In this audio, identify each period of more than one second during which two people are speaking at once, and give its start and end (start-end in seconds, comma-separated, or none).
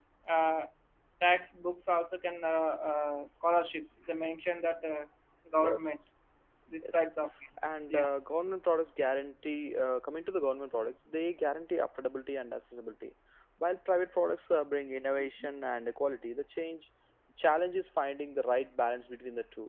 none